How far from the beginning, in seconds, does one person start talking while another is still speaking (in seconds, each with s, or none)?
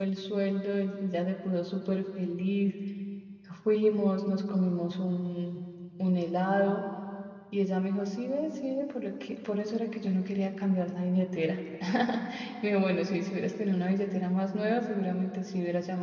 none